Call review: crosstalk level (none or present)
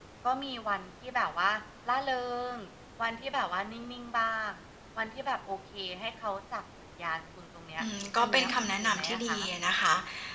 present